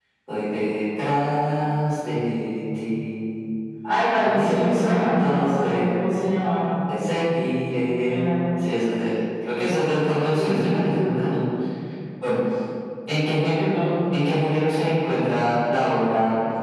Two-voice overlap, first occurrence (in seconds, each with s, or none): 4.1 s